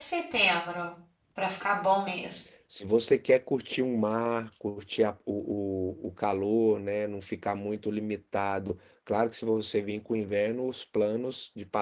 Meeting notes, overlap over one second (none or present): none